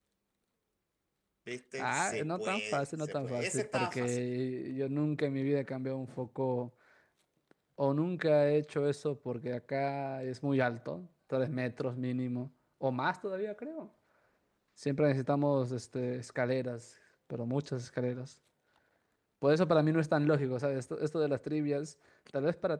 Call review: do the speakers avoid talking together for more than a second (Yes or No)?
No